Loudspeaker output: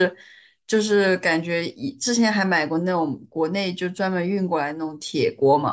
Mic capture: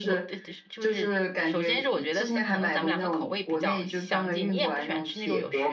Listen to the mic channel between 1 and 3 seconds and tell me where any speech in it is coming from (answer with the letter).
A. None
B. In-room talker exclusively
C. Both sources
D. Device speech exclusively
C